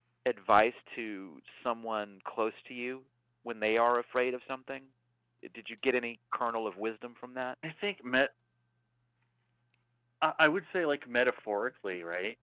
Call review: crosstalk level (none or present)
none